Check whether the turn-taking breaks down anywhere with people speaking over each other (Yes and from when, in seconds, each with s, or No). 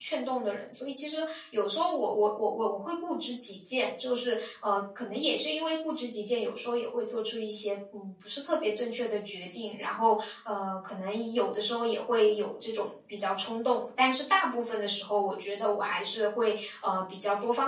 No